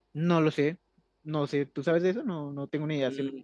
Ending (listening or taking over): taking over